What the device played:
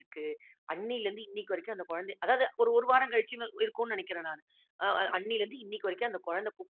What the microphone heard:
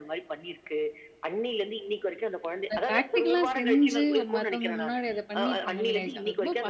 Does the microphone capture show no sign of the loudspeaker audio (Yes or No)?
No